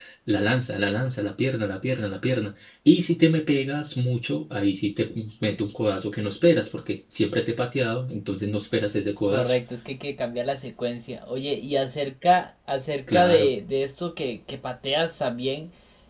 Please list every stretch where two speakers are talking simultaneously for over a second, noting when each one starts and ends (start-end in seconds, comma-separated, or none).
none